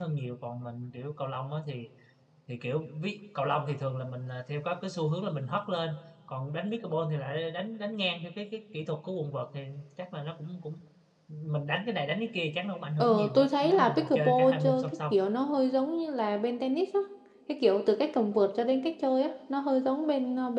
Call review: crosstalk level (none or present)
present